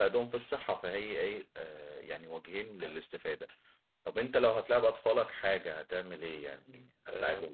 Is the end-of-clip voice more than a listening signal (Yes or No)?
Yes